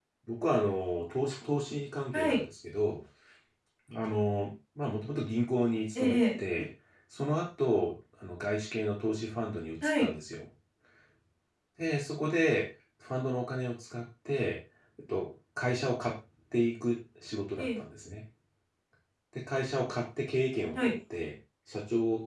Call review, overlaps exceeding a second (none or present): none